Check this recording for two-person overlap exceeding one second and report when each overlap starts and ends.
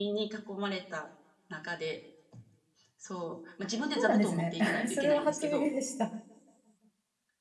4.0-5.7

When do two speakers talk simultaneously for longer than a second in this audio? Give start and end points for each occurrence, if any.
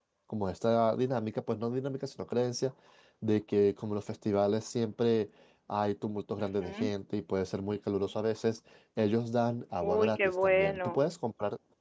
9.8-11.0

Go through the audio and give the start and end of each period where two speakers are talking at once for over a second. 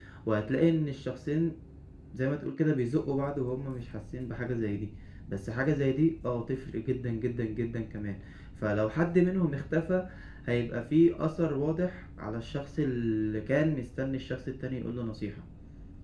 none

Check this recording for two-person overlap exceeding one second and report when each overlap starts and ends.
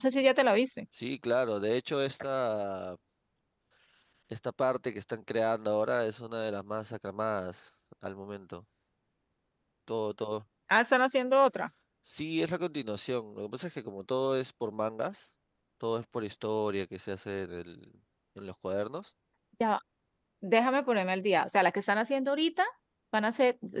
none

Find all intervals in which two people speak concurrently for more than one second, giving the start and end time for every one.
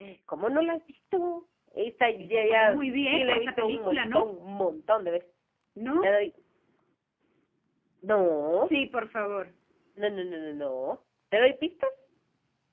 2.2-4.3

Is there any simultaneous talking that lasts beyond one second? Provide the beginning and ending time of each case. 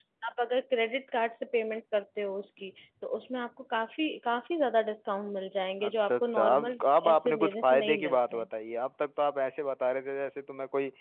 5.9-8.4

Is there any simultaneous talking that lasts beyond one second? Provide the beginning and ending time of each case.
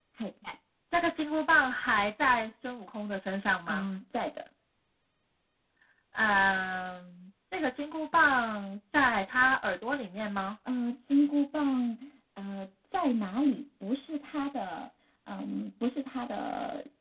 none

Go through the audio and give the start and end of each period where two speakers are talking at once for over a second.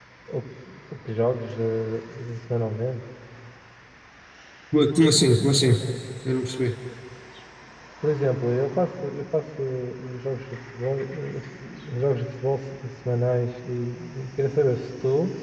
none

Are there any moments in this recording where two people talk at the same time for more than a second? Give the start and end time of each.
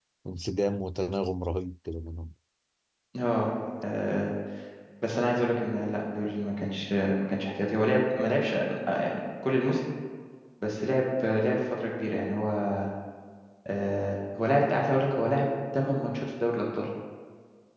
none

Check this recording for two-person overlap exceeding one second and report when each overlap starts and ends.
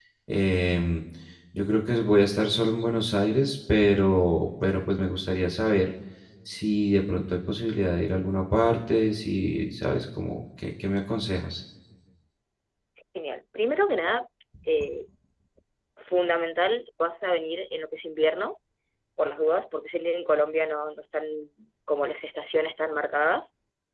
none

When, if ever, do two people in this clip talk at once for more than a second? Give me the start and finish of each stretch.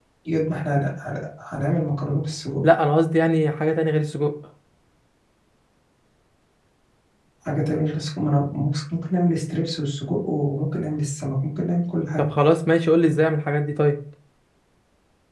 none

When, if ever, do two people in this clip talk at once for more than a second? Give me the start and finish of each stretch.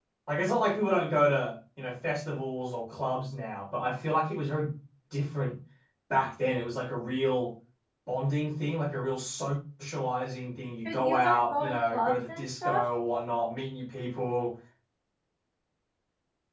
10.8-12.8

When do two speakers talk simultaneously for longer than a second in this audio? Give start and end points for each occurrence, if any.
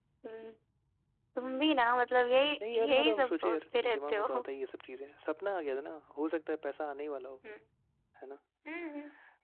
2.7-4.4

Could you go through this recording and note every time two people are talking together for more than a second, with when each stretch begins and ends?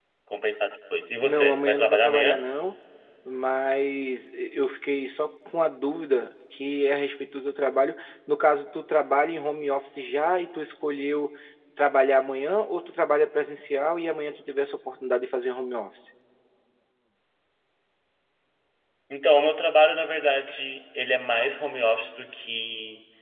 1.2-2.4

